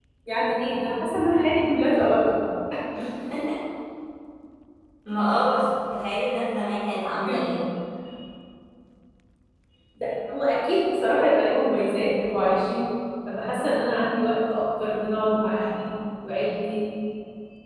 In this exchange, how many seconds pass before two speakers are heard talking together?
none

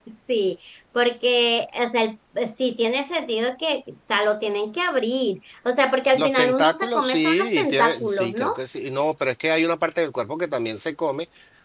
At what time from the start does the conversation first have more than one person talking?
6.1 s

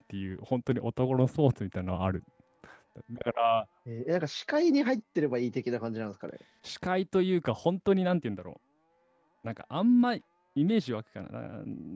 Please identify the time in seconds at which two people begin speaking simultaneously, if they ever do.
none

